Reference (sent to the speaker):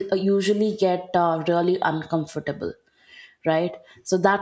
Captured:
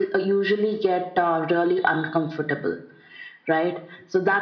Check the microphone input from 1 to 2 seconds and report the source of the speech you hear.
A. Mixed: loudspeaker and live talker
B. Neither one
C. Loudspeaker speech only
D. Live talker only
C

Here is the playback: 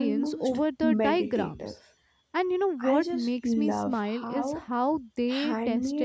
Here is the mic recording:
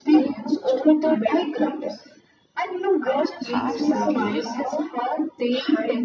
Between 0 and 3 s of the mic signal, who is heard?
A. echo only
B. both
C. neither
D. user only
A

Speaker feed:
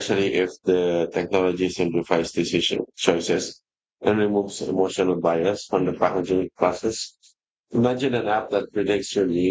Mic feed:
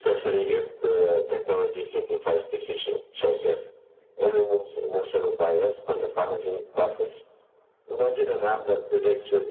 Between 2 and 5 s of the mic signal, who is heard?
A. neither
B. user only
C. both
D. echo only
D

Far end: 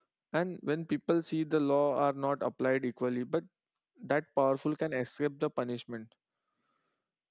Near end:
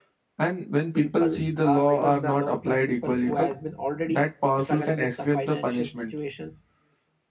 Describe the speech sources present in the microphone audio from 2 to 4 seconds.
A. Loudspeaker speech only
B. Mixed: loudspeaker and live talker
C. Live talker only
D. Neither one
B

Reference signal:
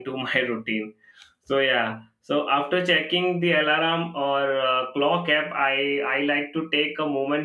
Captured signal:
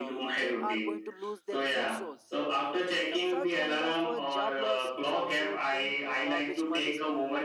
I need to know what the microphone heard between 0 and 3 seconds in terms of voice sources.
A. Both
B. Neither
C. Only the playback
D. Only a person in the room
A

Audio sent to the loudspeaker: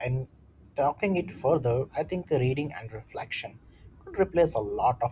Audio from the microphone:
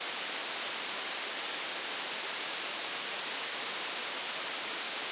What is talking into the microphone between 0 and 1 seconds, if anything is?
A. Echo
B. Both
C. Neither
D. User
C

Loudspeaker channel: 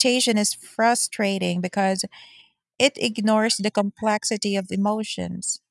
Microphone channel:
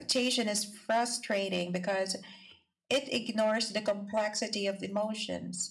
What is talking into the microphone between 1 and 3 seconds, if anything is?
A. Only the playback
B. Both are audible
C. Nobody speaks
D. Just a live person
A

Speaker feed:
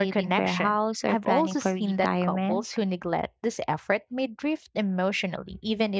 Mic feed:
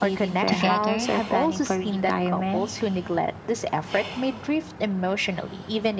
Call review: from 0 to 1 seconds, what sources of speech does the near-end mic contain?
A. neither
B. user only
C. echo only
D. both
D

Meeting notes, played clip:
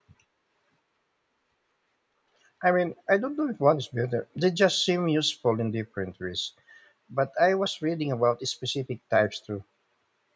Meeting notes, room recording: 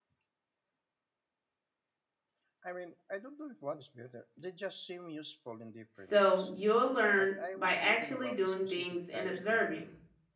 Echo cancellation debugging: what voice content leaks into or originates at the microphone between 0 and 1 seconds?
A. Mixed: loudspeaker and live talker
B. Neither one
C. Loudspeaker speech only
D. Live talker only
B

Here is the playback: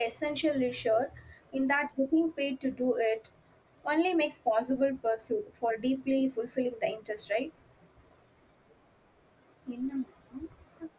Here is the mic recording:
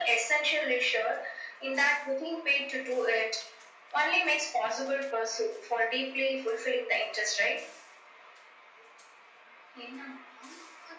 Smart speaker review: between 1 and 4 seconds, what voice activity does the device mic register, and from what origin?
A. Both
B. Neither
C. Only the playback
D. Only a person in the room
C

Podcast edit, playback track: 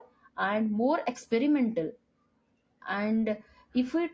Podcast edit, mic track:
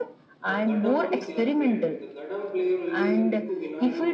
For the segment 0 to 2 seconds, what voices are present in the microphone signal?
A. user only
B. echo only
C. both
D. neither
C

